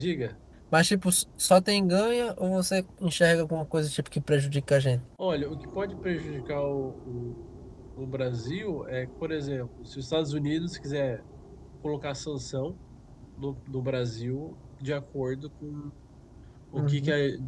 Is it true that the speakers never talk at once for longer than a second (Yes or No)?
Yes